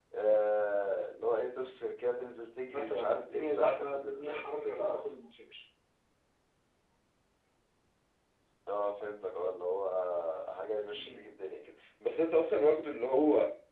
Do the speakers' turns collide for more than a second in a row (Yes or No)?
Yes